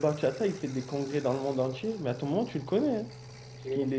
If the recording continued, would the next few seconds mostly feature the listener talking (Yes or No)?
No